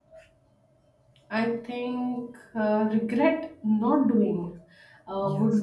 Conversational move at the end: listening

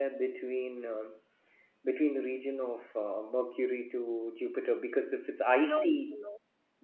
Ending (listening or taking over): taking over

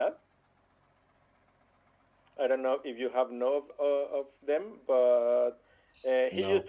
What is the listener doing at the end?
listening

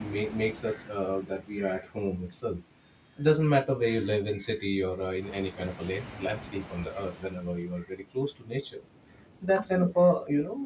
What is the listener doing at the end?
listening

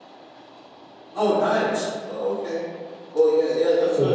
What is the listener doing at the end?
listening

